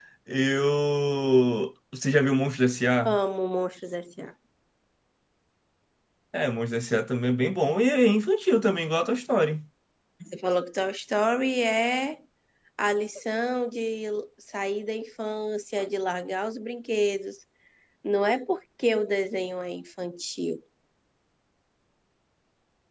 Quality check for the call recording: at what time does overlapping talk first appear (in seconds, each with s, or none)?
none